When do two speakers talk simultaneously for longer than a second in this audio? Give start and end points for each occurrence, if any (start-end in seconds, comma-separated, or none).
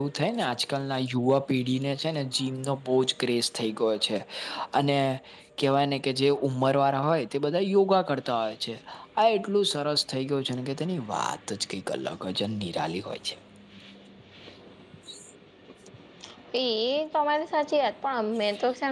none